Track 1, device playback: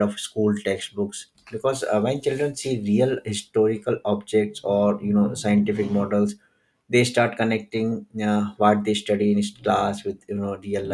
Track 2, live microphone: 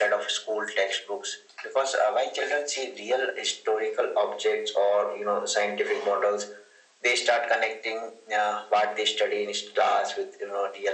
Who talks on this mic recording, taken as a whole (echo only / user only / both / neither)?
echo only